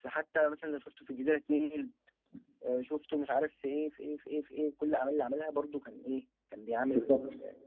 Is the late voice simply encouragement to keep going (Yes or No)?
Yes